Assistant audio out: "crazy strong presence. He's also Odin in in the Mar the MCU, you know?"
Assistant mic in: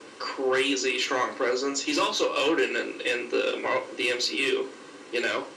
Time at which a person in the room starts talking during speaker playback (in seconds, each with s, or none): none